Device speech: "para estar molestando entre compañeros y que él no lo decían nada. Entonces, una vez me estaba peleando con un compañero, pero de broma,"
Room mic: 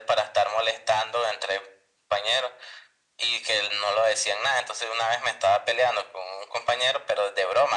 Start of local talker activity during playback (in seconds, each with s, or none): none